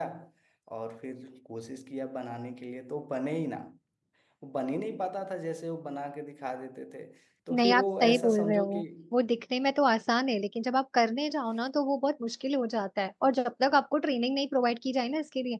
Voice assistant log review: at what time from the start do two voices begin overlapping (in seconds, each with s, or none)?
7.5 s